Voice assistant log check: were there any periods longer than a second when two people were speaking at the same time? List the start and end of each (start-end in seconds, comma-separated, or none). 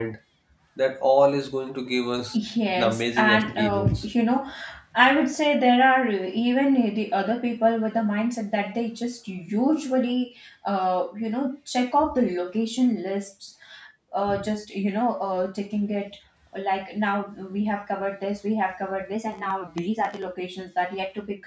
2.8-4.0